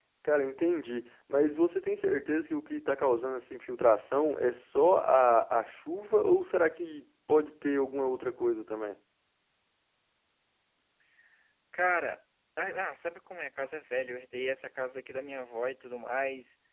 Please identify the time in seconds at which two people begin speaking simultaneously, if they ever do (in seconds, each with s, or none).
none